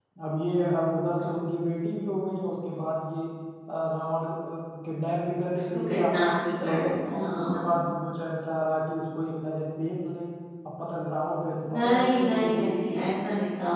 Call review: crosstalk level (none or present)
present